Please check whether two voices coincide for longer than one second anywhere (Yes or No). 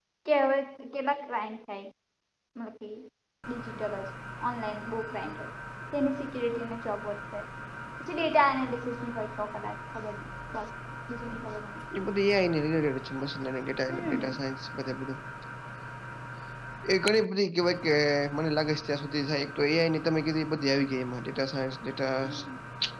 No